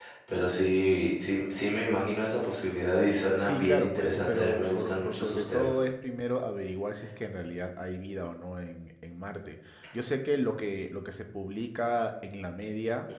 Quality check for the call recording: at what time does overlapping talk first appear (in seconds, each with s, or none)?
3.2 s